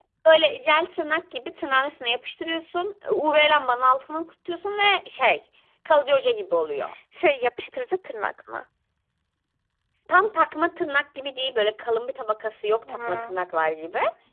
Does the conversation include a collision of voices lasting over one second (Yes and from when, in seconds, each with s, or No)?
No